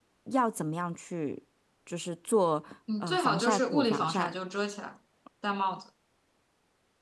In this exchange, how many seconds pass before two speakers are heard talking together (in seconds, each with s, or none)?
2.9 s